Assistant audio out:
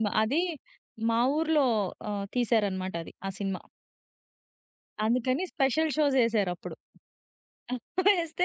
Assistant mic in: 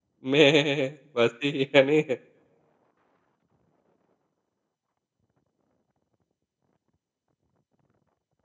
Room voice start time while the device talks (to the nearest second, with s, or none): 0 s